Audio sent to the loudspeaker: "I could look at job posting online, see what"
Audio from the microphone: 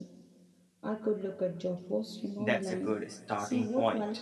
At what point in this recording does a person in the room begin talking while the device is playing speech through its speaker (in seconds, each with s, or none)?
2.4 s